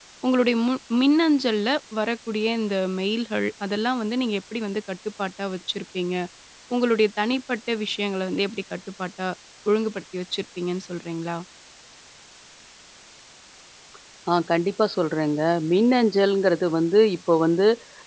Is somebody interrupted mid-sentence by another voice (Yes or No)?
No